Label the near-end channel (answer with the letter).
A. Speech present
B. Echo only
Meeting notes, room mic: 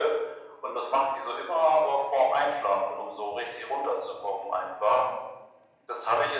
B